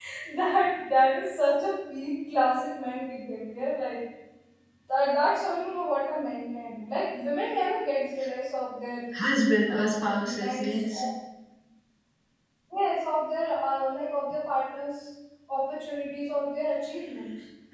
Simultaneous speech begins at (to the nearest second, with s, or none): 10 s